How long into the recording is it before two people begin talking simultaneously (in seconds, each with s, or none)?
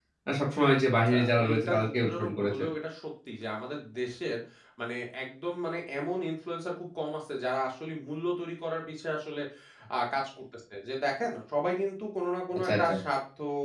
1.0 s